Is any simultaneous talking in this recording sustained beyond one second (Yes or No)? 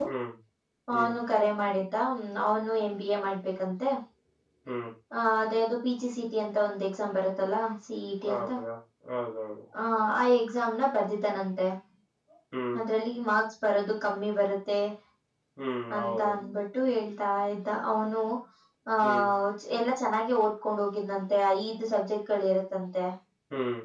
No